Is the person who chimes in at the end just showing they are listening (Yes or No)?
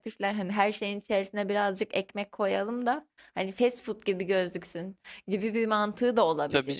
No